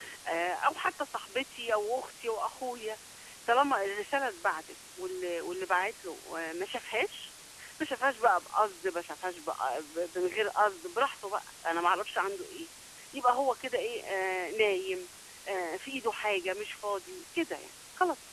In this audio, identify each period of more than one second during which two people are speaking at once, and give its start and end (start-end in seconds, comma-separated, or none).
none